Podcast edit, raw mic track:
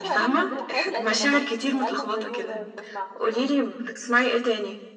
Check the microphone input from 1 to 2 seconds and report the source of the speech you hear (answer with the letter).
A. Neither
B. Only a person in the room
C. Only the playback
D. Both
D